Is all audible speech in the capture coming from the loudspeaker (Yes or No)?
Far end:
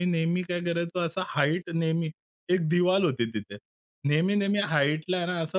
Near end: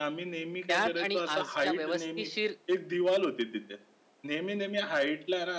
No